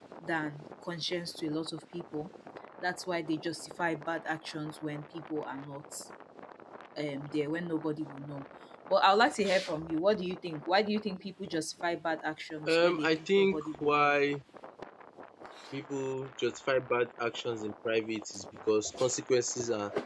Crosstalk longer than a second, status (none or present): present